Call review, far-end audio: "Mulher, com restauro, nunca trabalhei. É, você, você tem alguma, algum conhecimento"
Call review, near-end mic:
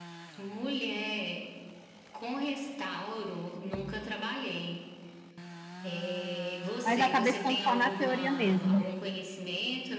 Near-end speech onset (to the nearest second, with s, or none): 7 s